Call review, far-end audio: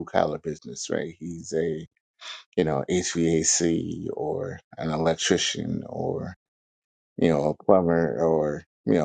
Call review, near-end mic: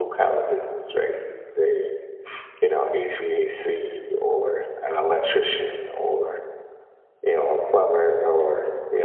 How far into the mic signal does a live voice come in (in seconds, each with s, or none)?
none